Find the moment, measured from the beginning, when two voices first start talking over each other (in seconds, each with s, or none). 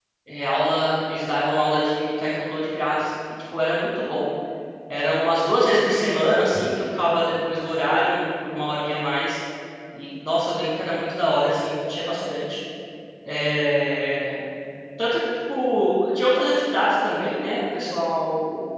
none